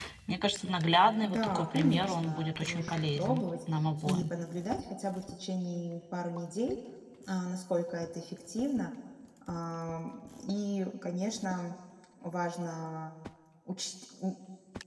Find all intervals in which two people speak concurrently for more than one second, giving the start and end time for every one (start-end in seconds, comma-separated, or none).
1.2-3.4